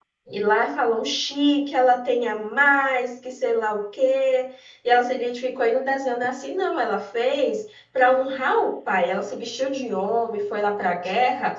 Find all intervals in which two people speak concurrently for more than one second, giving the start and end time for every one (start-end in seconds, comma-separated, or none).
none